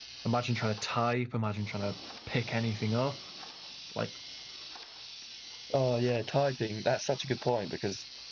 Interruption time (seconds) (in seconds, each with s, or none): none